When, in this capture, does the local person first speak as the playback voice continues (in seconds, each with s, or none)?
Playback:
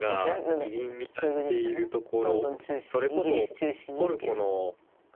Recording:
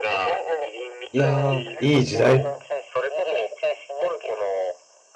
1.1 s